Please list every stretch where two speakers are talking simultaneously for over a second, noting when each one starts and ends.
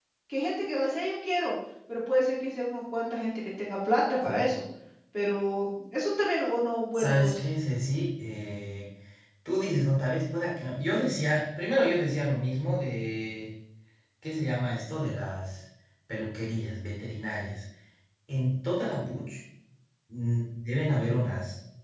none

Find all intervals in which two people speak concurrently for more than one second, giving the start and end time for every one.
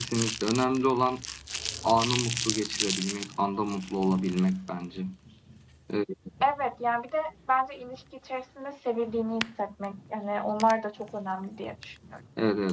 none

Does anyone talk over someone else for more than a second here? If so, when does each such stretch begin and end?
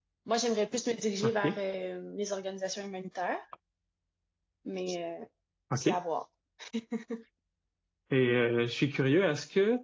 none

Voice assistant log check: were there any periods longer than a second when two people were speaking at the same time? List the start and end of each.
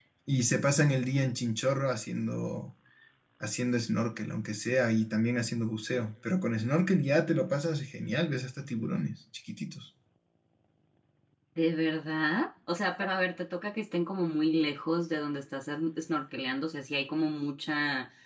none

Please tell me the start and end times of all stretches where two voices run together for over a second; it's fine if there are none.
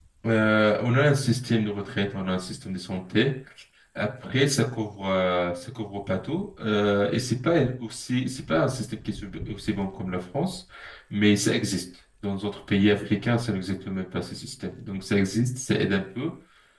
none

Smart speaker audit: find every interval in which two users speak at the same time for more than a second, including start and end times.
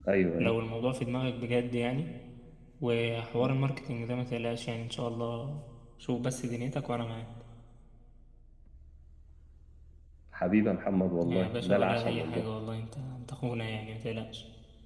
11.2-12.5

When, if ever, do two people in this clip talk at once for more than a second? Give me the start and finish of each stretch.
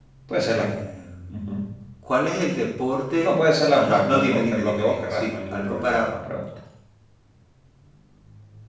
3.8-6.1

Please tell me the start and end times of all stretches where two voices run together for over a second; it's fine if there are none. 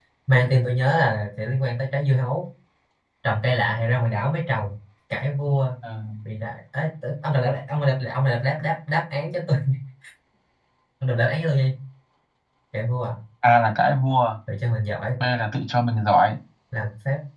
none

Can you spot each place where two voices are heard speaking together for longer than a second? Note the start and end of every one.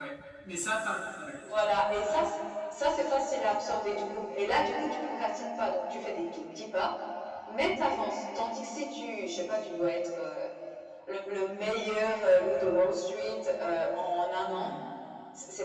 none

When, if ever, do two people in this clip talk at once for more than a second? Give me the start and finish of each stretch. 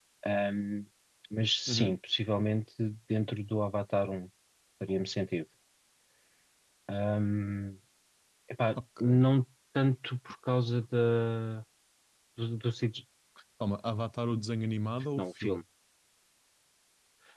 none

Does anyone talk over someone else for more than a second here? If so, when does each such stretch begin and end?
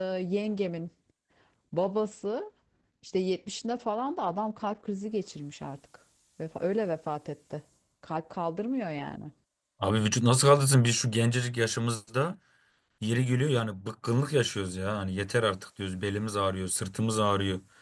none

